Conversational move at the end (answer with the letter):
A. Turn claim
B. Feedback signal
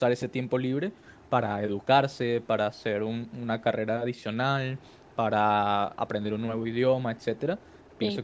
B